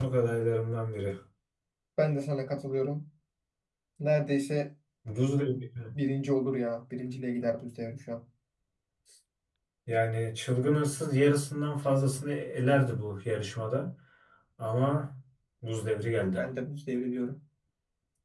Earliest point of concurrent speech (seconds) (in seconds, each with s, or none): none